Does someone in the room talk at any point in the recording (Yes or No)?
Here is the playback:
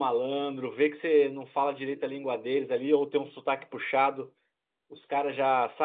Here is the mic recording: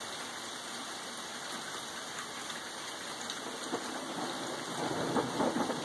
No